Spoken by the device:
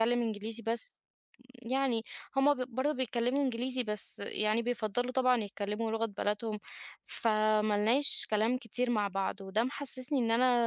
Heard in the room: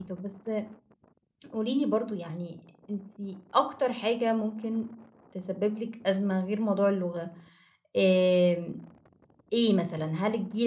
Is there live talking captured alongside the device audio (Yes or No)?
Yes